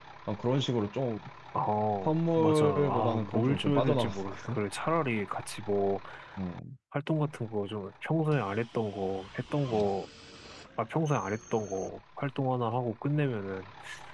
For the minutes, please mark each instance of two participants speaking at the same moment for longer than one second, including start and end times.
2.0-4.6

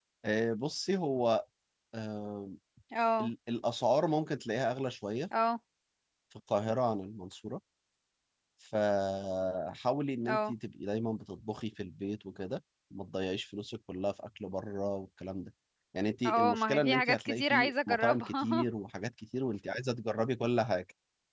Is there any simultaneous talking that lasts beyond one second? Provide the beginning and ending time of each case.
16.2-18.7

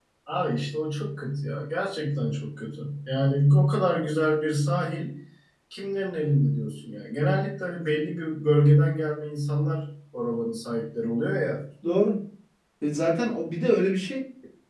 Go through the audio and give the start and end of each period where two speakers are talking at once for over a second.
none

